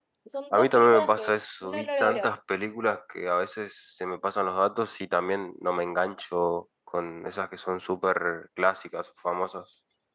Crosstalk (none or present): present